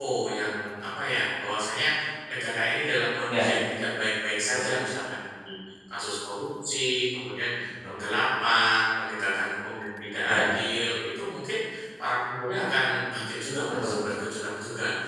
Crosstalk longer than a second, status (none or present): none